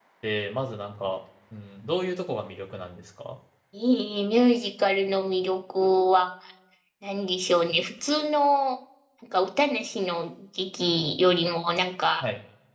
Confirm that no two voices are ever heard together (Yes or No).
Yes